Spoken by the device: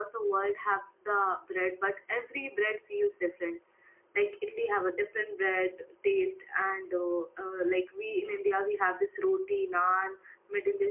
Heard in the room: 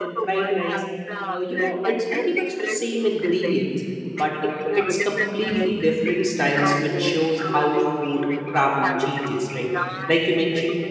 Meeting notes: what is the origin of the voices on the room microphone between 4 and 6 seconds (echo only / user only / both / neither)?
both